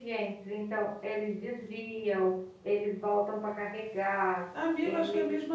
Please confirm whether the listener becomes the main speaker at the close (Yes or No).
Yes